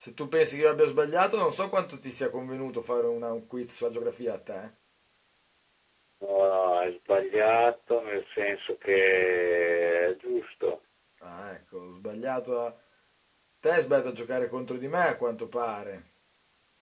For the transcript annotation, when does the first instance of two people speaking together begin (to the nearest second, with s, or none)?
none